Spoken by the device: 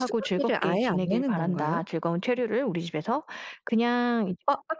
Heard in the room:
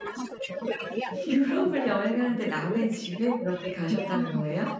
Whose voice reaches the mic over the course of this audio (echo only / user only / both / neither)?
both